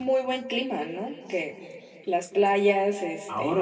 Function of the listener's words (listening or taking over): taking over